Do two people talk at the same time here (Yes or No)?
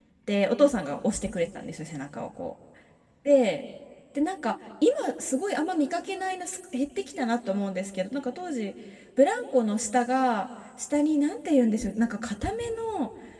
No